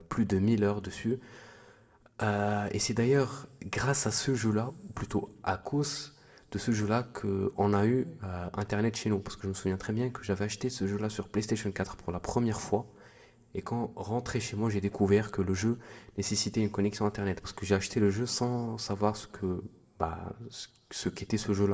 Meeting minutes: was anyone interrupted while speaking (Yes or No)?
No